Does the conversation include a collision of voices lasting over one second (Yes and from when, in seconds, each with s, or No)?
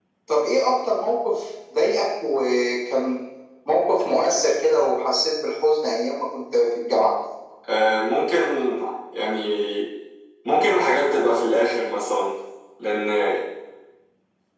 No